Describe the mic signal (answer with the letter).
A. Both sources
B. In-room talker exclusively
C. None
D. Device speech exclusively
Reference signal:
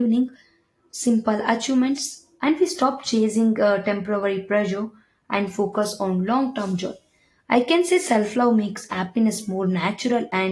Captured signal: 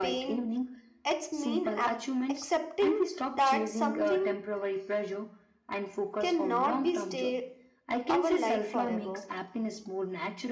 A